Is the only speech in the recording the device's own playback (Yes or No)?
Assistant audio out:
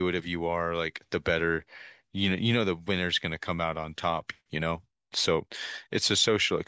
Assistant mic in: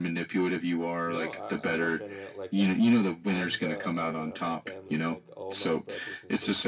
No